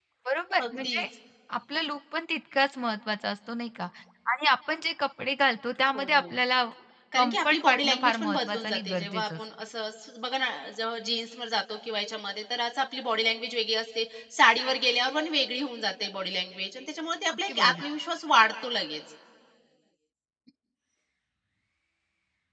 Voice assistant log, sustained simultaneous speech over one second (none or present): present